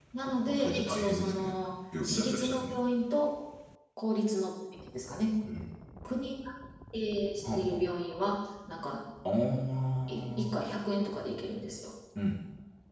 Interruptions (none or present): present